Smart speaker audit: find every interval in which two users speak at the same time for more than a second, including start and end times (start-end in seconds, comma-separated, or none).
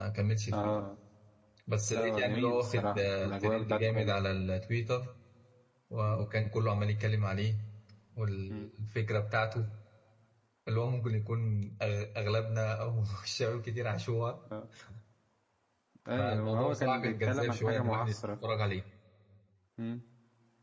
1.9-4.2, 16.2-18.2